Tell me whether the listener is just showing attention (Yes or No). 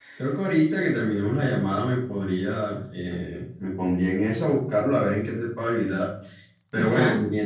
Yes